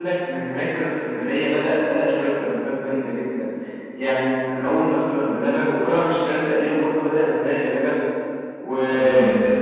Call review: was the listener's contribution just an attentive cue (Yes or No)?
Yes